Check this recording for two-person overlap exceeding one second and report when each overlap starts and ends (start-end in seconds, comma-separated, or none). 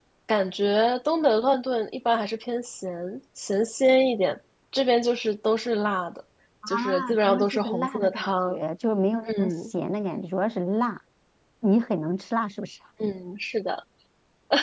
6.7-8.6